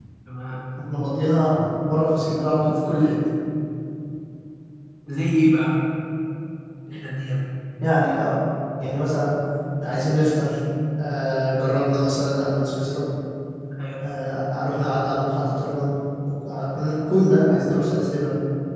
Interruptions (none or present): none